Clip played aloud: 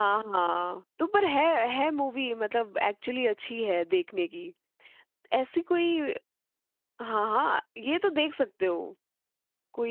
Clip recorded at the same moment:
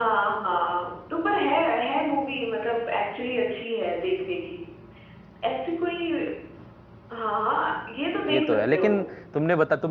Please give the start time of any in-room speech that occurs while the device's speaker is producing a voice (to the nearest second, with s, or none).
8 s